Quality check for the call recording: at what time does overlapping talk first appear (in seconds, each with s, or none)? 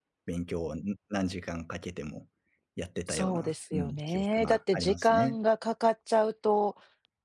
3.1 s